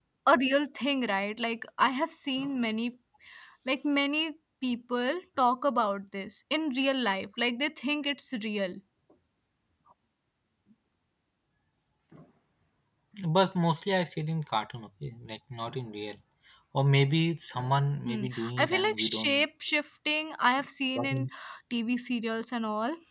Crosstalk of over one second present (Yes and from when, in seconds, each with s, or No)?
Yes, from 18.1 s